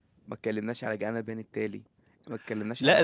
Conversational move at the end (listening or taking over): taking over